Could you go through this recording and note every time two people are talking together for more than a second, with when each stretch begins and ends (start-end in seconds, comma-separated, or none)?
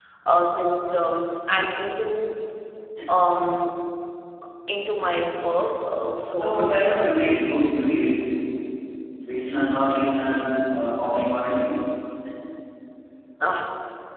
none